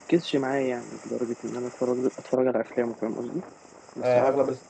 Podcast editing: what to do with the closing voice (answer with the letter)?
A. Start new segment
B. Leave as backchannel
A